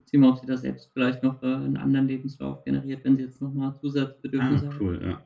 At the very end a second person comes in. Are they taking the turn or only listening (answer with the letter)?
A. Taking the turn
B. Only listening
A